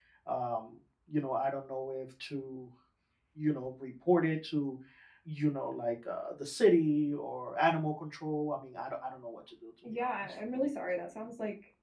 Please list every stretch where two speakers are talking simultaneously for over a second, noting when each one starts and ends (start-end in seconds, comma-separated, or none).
none